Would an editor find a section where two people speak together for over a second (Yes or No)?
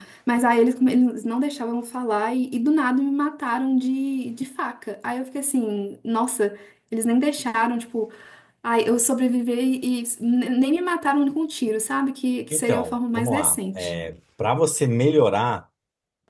Yes